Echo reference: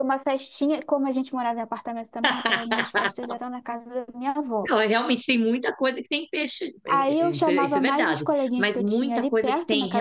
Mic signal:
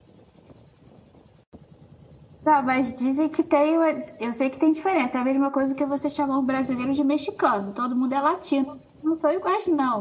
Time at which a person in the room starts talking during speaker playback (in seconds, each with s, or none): 2.5 s